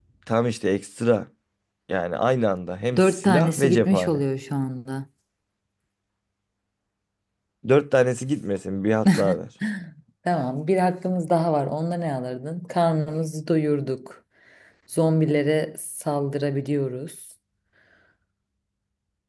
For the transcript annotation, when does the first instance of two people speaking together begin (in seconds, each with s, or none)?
3.0 s